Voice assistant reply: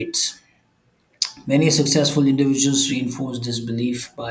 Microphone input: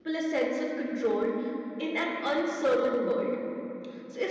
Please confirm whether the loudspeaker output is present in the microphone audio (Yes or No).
No